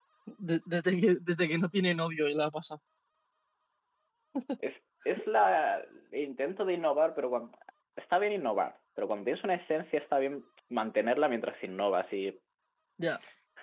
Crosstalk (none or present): none